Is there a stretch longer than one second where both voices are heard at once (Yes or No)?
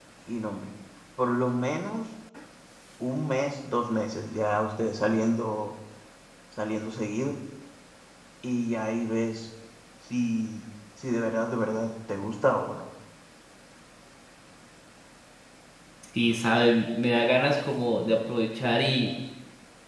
No